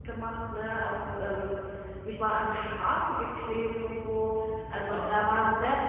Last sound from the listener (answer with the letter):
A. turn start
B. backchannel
B